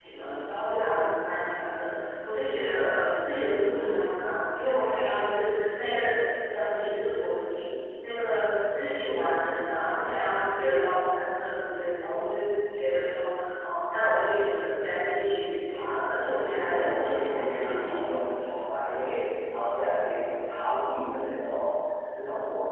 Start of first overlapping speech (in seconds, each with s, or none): 16.6 s